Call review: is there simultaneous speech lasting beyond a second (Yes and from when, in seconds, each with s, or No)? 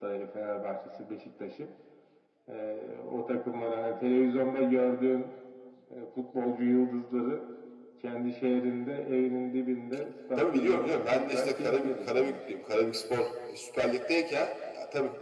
Yes, from 10.4 s